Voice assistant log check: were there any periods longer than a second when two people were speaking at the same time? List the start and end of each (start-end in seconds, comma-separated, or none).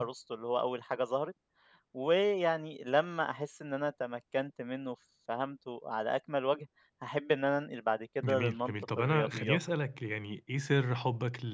8.2-9.6